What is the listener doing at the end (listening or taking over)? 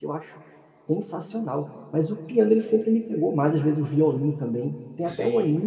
listening